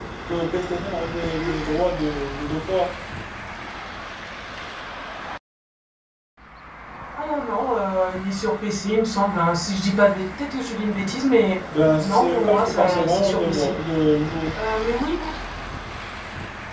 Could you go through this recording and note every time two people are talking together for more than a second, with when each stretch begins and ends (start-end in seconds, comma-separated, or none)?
12.0-13.8